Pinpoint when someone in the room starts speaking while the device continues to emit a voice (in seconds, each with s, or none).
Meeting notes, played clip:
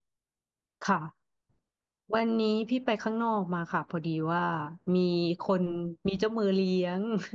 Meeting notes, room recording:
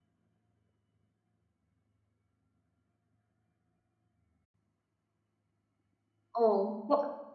6.3 s